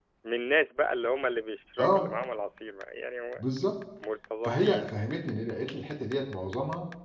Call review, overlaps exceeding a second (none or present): none